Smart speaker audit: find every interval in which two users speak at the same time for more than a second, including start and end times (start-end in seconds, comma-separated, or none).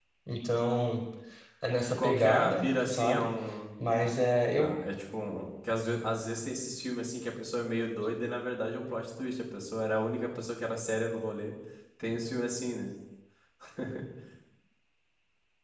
1.9-3.3